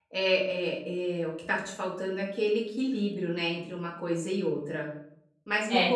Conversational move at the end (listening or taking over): listening